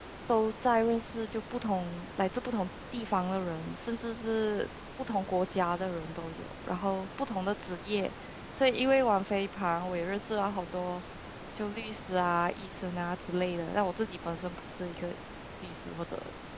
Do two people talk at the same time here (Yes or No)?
No